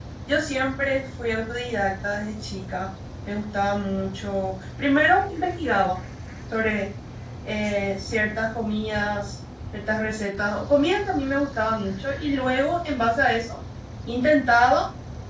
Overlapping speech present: No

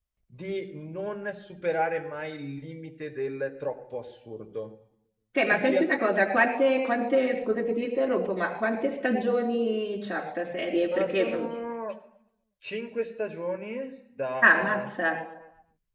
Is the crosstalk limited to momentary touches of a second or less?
Yes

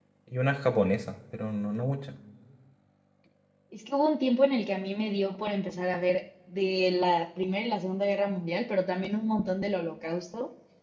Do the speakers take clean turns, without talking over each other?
Yes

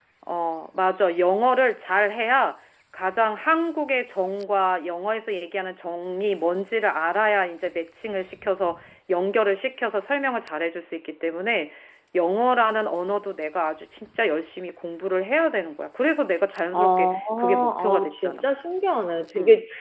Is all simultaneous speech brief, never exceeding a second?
No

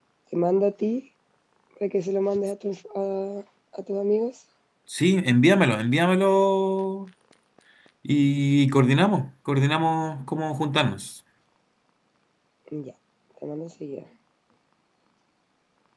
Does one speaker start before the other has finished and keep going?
No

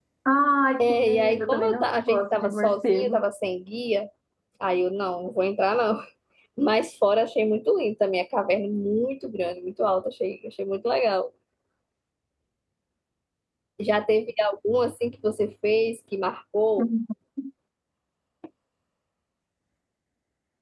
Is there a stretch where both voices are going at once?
Yes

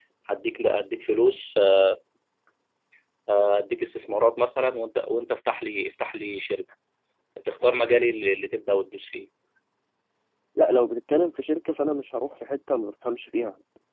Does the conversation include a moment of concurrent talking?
No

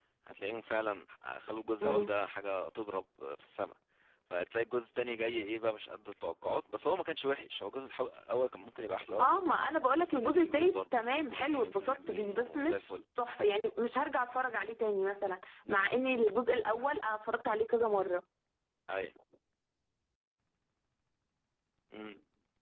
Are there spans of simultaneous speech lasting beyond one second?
Yes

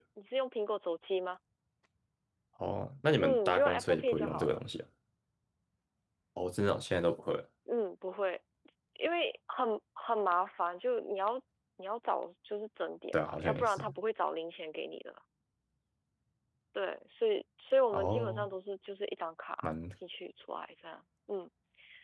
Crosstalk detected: Yes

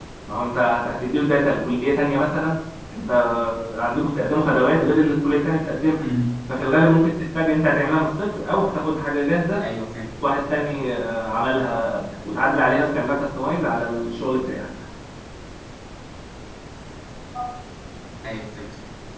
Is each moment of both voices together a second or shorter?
Yes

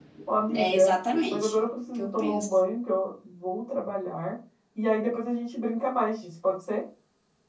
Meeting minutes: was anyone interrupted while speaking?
Yes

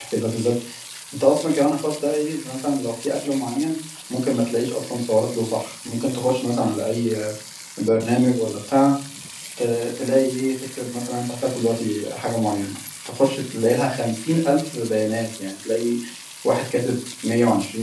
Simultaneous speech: No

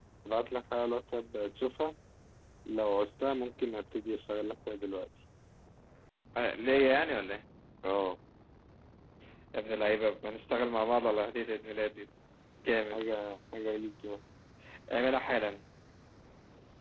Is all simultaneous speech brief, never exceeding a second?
Yes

